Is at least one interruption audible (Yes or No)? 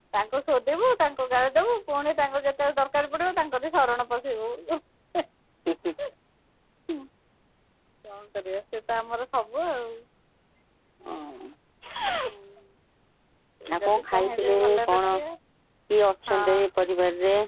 Yes